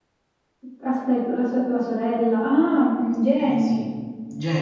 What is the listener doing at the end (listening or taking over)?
taking over